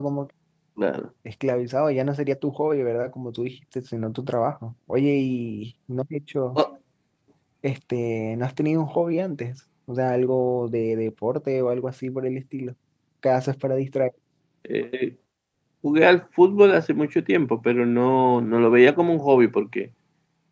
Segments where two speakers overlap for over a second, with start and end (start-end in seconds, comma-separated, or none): none